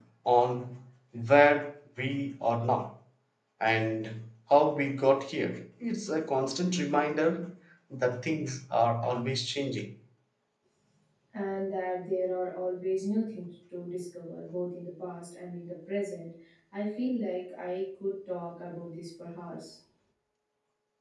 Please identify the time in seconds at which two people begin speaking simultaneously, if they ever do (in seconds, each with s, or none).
none